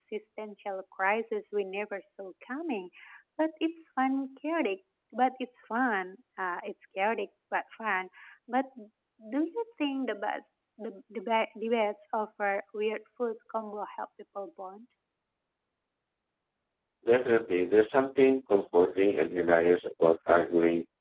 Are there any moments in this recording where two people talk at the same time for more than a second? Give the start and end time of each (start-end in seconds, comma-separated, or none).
none